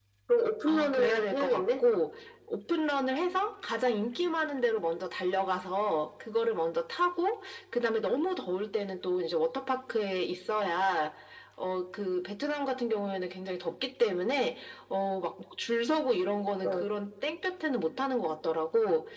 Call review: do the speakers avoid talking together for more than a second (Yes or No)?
No